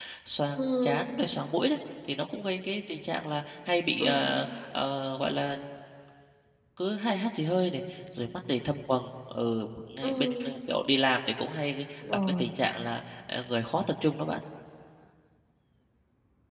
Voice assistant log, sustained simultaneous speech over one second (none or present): none